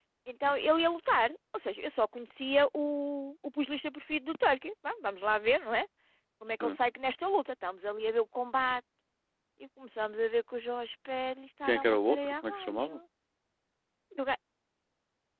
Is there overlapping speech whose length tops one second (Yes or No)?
Yes